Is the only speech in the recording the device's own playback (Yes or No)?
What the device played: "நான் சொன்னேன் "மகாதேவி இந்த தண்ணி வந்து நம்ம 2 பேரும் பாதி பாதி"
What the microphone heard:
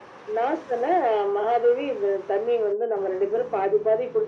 Yes